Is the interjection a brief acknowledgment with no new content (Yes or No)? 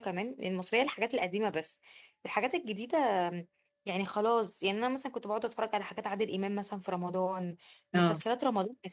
Yes